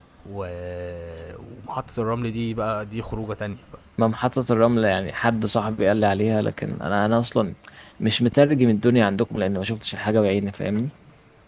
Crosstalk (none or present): none